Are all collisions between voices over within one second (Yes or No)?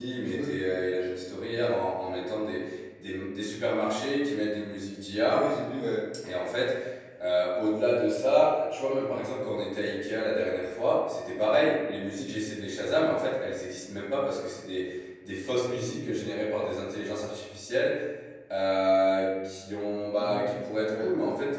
Yes